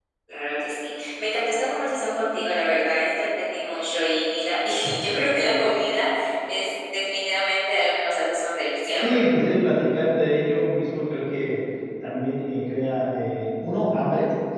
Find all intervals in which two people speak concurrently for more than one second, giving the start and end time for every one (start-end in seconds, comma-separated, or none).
none